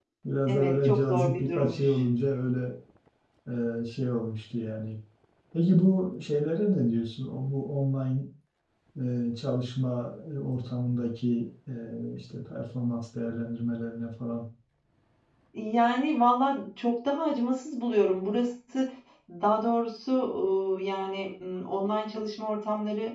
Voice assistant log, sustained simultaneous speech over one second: present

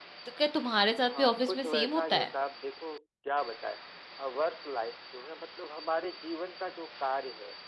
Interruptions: present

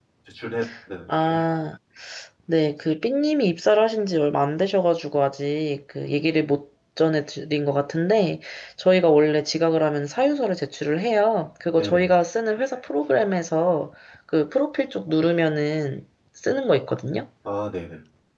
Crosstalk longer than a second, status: none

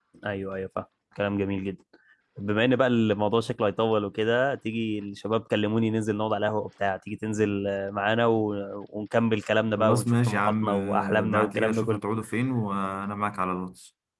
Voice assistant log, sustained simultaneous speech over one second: present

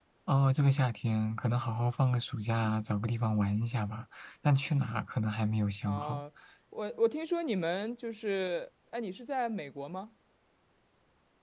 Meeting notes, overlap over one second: none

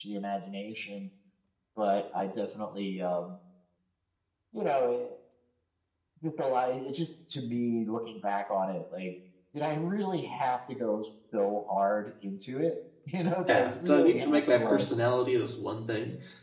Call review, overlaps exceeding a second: present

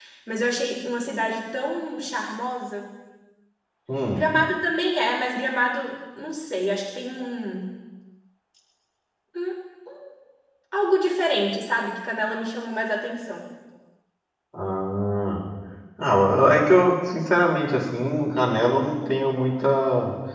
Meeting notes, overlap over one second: none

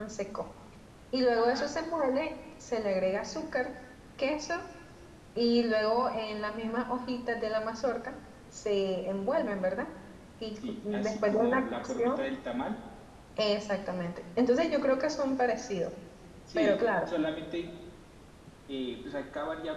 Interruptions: present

